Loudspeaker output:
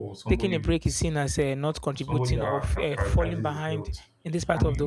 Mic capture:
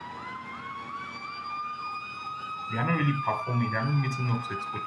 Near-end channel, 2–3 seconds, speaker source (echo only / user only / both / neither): user only